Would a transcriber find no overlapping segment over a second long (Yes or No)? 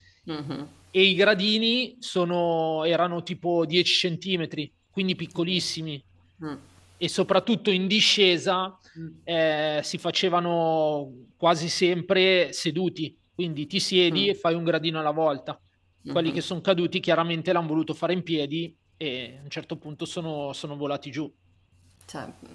Yes